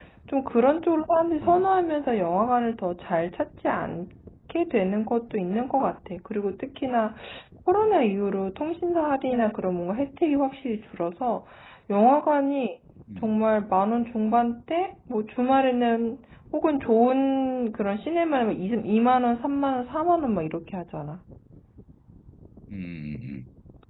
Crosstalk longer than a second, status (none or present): none